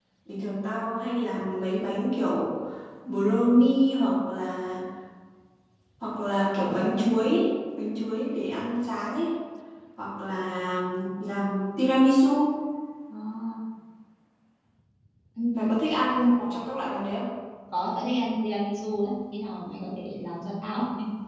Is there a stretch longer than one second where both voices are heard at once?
No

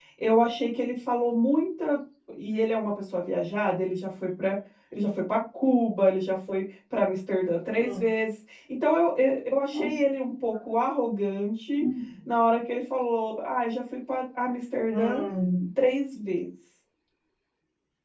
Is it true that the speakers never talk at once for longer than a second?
Yes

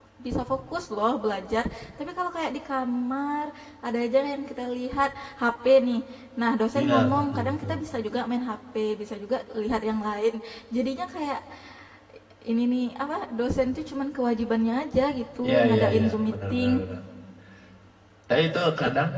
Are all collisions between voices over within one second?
No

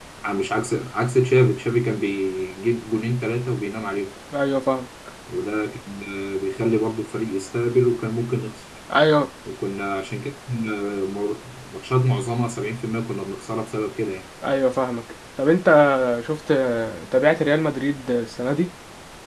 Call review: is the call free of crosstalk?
Yes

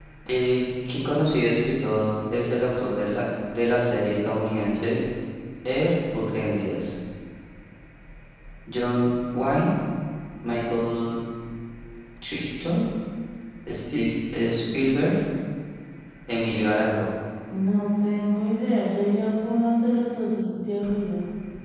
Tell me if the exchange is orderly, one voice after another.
Yes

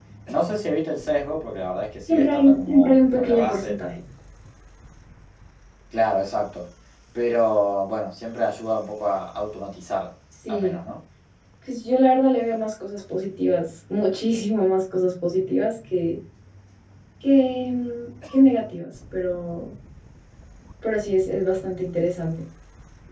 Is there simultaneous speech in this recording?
Yes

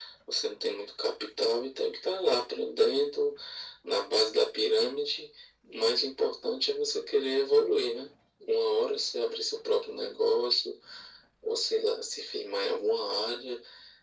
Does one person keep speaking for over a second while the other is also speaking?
No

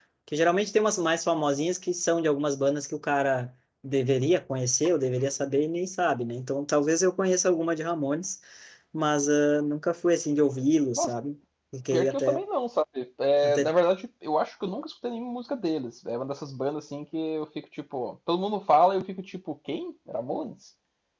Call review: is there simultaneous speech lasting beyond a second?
No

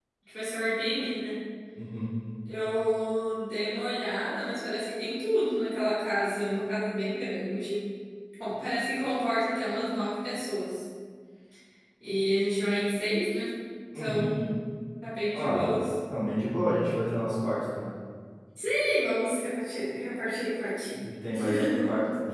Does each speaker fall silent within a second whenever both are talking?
Yes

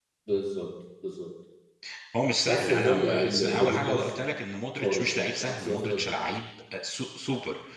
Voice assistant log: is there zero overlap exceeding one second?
No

